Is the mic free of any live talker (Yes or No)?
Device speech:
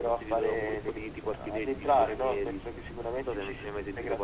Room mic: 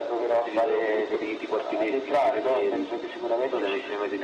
Yes